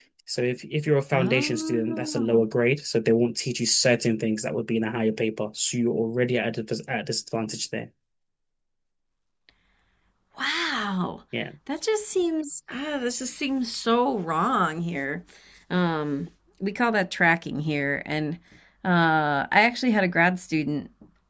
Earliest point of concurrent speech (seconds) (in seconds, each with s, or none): 1.1 s